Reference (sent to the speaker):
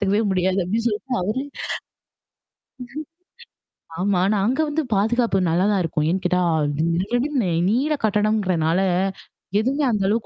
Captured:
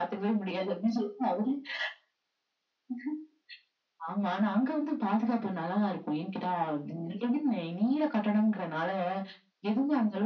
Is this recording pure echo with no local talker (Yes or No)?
Yes